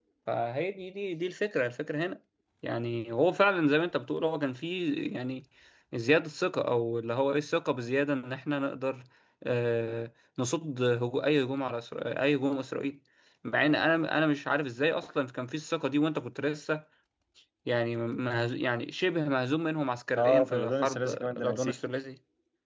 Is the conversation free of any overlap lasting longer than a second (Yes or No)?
No